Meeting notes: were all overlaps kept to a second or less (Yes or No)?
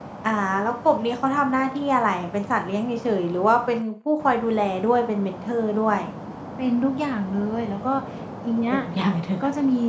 Yes